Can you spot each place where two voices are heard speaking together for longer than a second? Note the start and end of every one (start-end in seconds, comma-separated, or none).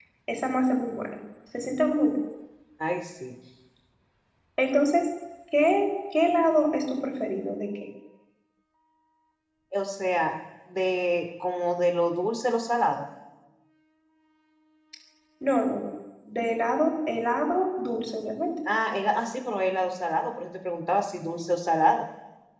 none